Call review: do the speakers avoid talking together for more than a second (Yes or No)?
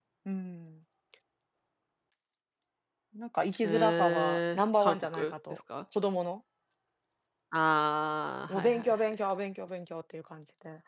No